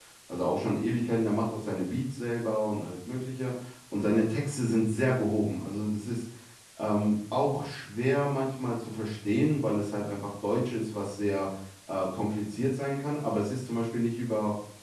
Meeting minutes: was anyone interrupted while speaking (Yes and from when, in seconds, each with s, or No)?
No